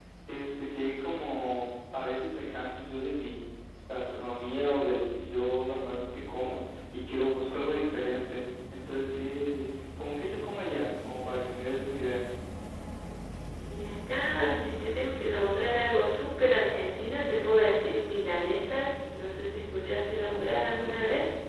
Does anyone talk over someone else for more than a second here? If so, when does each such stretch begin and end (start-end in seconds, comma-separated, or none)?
none